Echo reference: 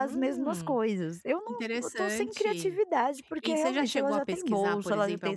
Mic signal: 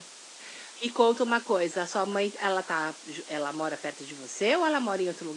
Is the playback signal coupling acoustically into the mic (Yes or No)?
No